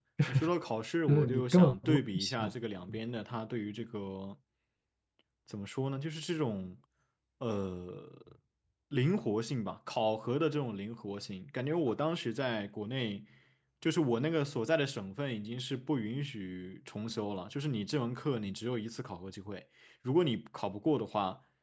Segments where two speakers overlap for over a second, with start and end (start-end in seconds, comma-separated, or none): 1.1-2.5